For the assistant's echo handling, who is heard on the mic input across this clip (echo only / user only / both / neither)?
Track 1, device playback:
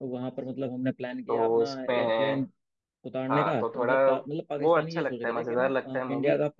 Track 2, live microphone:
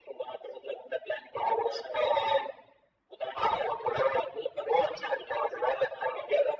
echo only